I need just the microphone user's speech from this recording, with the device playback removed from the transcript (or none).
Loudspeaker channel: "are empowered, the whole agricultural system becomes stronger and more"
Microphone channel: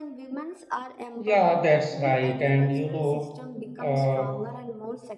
Yeah, that's right. And you know, uh,